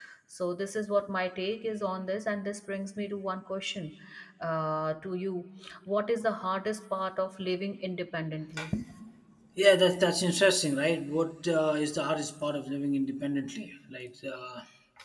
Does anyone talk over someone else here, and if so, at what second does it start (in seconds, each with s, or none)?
none